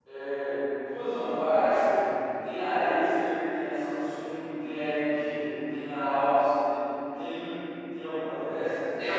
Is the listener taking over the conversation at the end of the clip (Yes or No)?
Yes